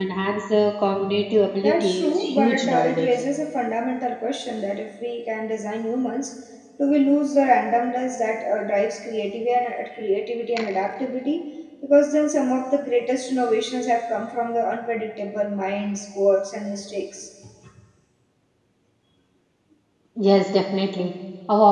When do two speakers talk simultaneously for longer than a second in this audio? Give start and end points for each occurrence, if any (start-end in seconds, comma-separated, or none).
1.6-3.1